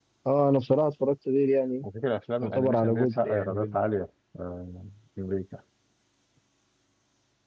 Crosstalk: present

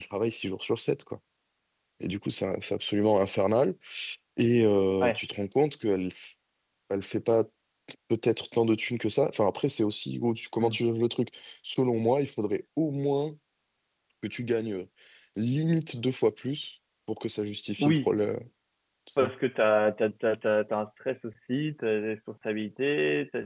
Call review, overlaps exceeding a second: none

